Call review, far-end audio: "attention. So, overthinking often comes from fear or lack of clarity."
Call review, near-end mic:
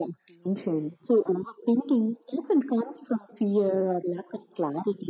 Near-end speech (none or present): none